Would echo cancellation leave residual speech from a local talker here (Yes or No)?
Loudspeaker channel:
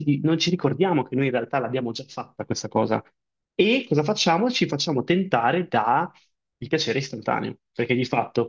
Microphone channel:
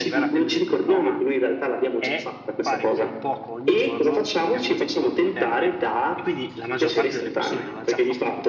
Yes